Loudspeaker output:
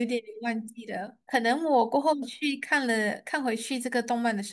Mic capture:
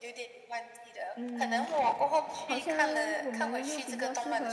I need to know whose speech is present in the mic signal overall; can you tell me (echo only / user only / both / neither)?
both